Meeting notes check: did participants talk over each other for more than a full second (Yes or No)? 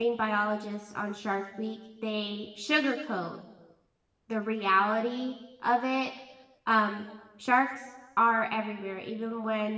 No